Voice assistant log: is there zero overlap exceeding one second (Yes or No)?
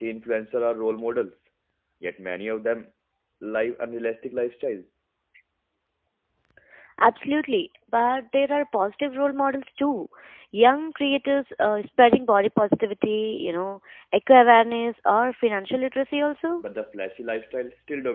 Yes